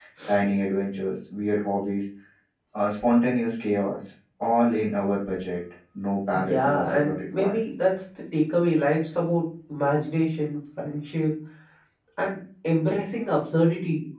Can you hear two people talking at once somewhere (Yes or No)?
Yes